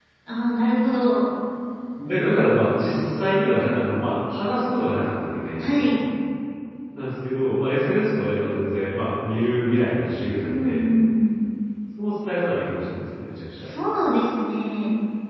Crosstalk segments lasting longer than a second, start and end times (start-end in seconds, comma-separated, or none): none